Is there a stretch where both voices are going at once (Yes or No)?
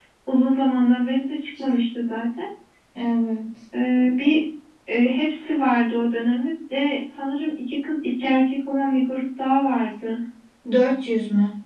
No